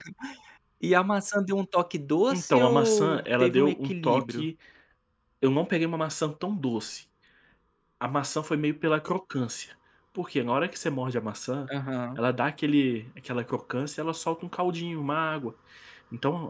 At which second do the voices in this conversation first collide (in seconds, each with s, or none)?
2.3 s